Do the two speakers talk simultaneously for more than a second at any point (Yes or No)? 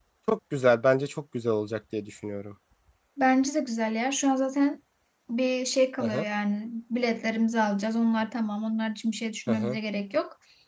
No